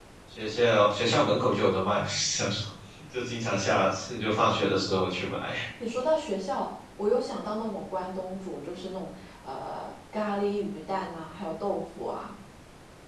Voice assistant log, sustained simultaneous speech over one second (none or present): none